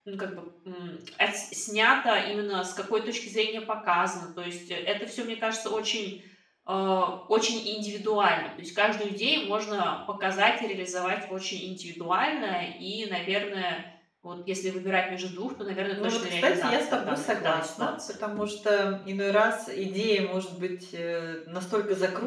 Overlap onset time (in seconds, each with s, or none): 16.0 s